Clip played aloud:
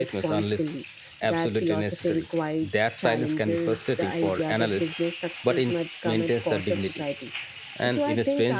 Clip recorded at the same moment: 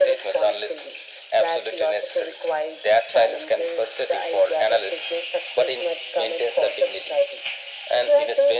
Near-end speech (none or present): none